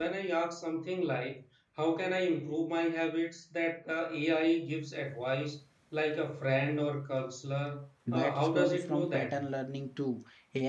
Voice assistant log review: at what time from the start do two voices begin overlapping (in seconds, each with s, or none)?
8.1 s